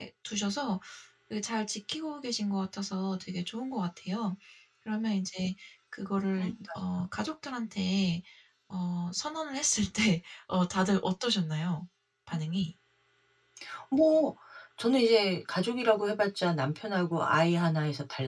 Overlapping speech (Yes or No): No